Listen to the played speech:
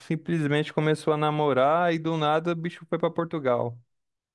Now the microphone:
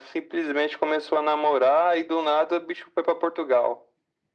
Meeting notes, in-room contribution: none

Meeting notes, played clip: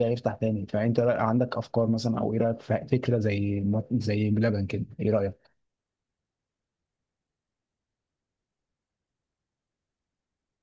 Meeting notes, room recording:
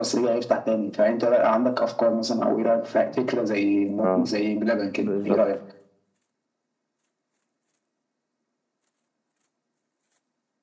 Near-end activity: present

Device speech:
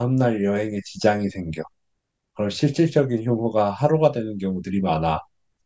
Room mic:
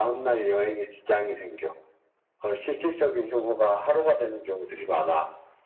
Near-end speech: none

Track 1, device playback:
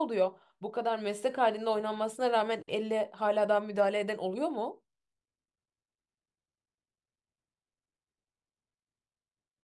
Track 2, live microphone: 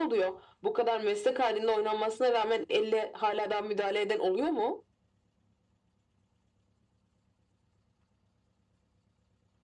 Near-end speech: none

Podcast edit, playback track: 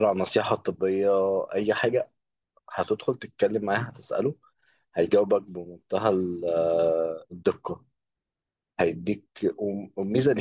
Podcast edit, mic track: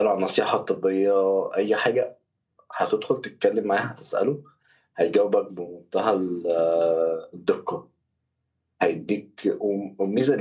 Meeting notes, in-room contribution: none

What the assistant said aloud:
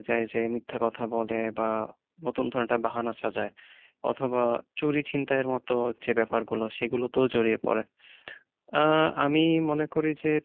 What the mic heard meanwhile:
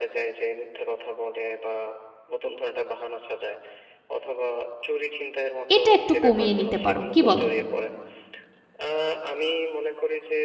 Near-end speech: present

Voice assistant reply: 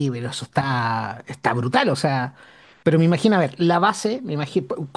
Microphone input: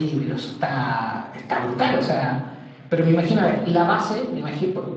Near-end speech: none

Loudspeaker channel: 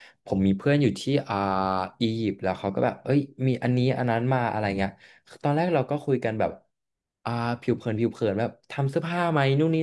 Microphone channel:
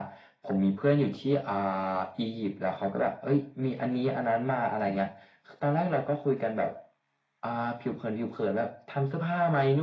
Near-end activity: none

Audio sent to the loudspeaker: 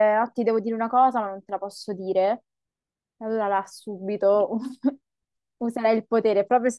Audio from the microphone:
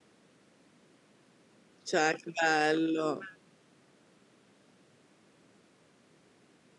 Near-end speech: present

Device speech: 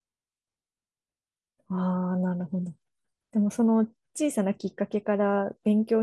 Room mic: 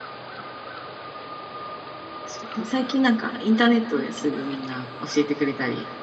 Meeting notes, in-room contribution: present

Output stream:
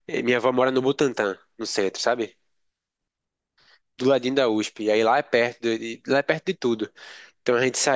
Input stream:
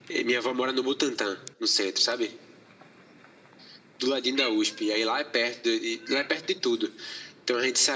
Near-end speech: none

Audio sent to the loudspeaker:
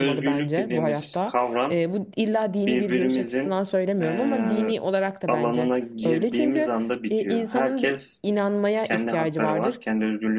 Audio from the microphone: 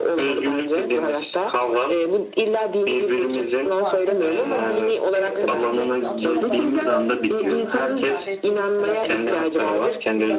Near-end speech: present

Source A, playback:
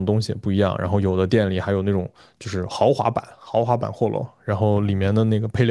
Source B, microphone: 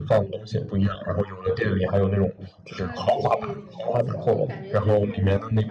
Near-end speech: present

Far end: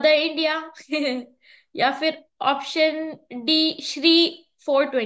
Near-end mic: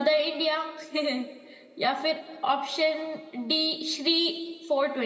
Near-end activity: none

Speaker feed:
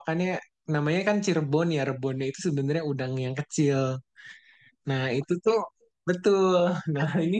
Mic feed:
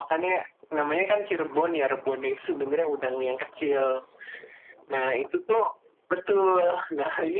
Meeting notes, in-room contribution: none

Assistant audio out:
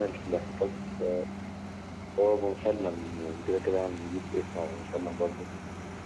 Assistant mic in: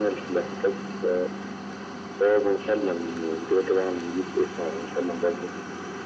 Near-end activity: none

